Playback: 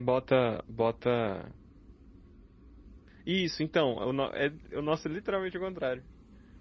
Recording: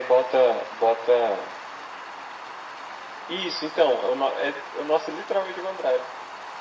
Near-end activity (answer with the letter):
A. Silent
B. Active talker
A